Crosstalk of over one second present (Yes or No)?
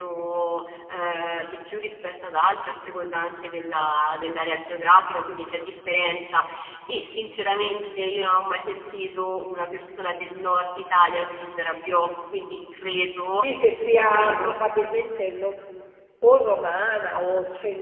No